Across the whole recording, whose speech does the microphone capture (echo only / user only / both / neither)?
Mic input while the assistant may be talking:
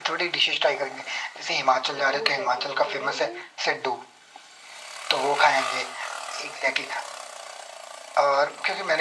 both